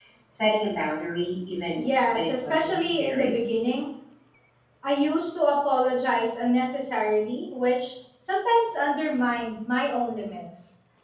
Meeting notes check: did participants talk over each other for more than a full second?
Yes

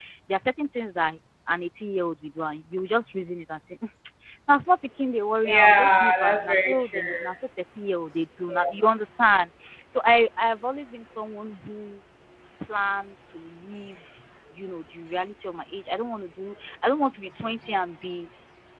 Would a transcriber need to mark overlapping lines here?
Yes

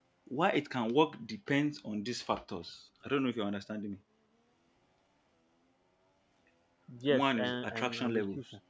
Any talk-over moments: Yes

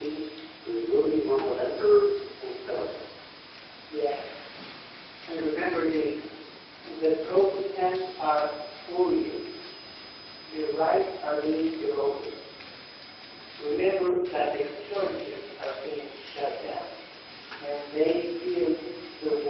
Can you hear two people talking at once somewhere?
No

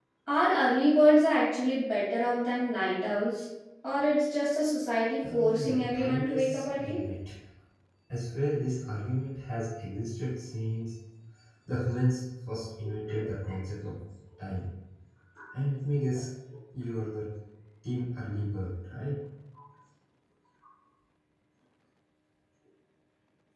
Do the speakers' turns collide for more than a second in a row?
Yes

